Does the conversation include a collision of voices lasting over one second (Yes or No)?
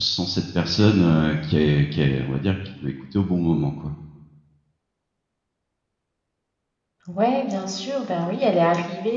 No